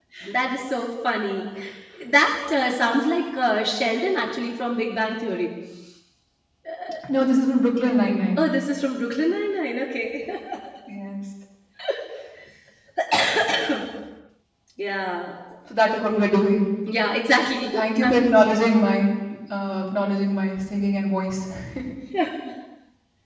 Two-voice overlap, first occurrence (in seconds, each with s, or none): none